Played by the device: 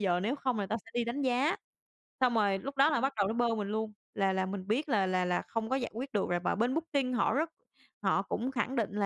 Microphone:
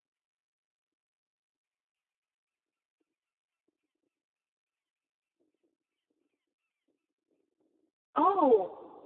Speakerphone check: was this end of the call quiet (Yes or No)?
No